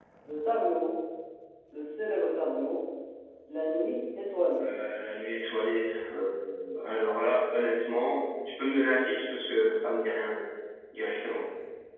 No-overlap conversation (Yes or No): Yes